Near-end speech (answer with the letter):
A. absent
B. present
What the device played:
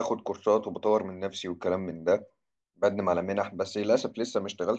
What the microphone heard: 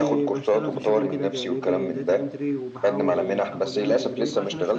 B